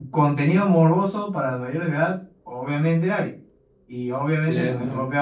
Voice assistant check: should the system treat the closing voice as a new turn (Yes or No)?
No